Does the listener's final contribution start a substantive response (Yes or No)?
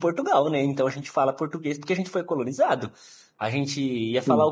No